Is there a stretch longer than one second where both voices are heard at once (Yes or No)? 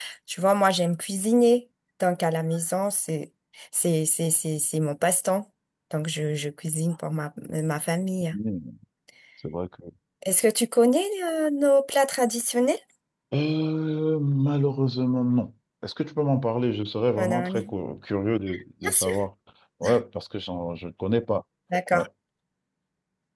No